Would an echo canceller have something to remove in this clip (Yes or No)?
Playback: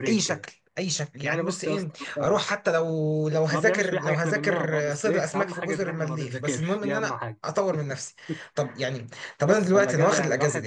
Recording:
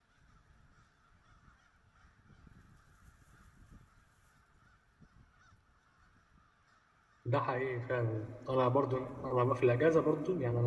No